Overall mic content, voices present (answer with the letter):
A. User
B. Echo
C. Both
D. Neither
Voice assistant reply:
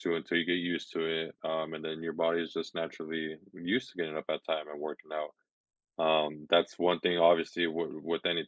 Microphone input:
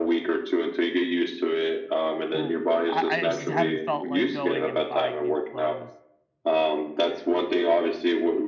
C